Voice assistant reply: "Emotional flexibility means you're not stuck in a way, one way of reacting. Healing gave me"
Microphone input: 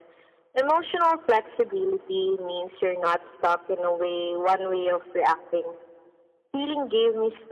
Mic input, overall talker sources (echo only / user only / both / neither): echo only